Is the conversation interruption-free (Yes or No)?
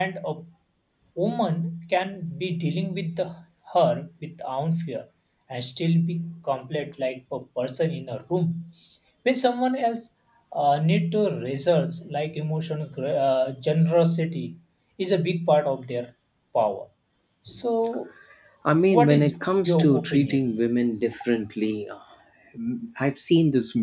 No